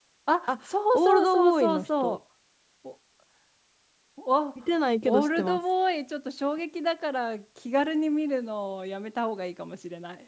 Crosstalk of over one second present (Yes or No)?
Yes